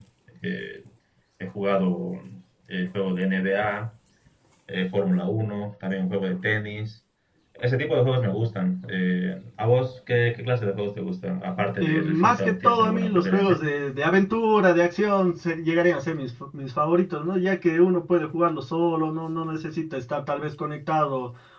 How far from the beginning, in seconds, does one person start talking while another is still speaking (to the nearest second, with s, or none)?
12 s